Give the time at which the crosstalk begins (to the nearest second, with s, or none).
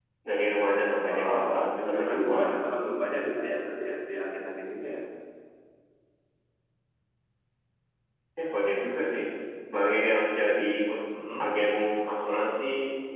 1 s